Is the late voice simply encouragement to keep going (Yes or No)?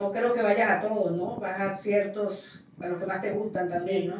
No